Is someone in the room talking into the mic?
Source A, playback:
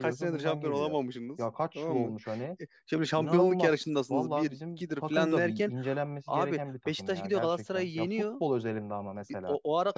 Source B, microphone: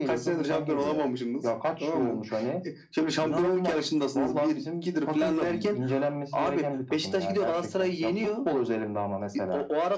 No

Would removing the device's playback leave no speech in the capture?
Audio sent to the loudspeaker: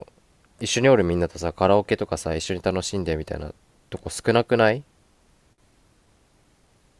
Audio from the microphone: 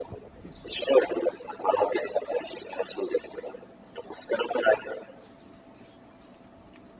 Yes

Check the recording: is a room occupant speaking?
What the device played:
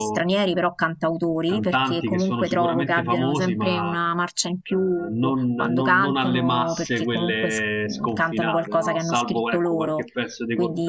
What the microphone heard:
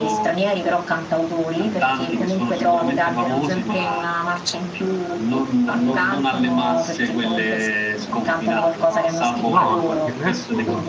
Yes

